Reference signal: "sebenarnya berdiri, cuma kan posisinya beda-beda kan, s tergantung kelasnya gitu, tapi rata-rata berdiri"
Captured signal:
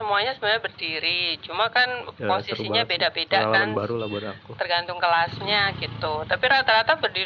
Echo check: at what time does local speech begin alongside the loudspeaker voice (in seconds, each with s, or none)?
2.2 s